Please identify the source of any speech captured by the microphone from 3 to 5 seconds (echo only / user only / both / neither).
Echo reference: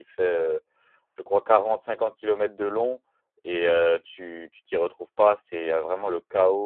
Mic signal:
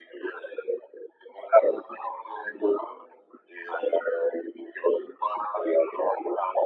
echo only